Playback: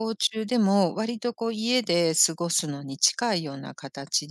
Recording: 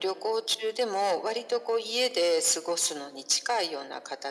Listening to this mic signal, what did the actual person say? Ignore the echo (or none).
none